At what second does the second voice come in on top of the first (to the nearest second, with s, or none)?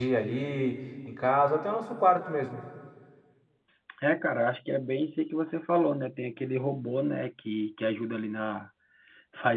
none